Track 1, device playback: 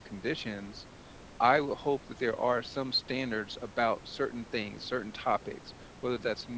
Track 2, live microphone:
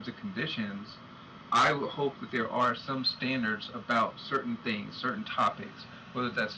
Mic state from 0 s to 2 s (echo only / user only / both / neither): echo only